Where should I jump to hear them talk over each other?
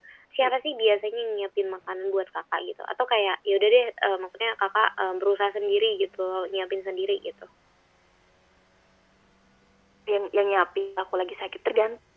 none

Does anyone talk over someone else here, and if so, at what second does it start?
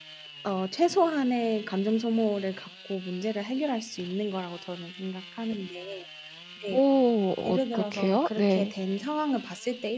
7.5 s

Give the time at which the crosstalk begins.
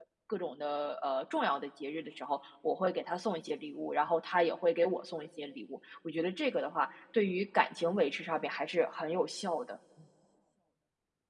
none

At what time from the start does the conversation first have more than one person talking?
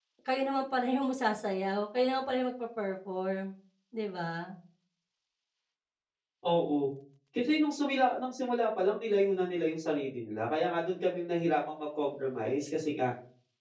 none

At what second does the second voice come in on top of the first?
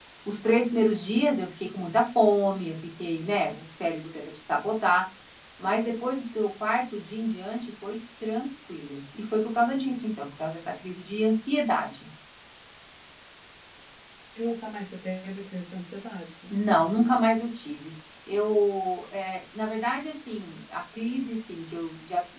none

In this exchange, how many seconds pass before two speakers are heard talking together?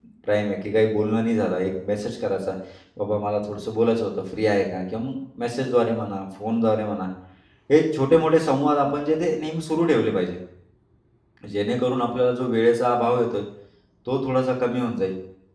none

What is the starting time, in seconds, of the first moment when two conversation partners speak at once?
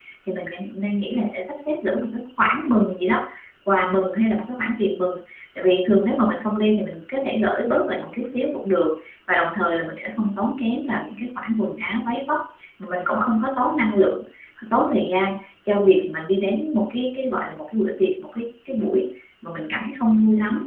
none

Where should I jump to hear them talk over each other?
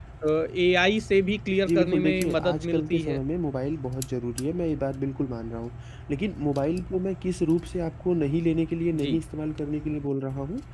1.6 s

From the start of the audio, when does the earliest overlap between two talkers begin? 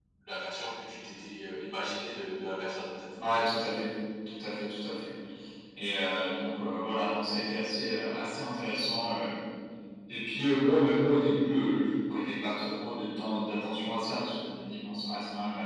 none

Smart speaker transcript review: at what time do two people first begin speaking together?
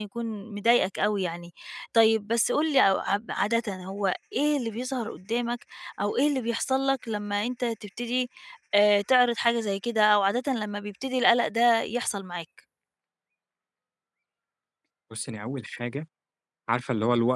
none

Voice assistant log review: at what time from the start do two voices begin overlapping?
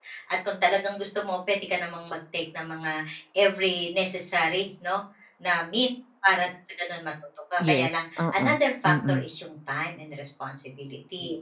7.6 s

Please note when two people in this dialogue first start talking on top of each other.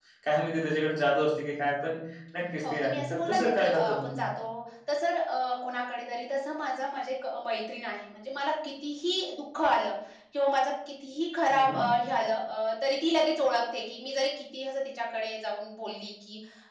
2.6 s

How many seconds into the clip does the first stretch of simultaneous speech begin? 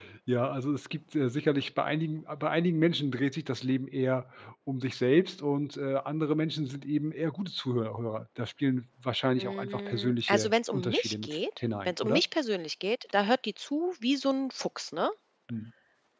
9.4 s

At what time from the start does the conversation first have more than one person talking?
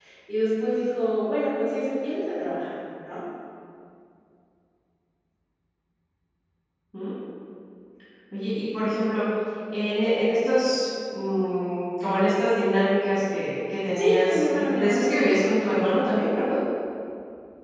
13.9 s

